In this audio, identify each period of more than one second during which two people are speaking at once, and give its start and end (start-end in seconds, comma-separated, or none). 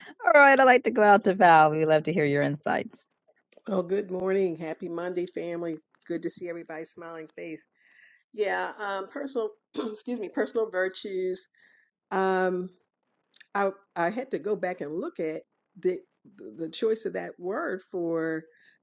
none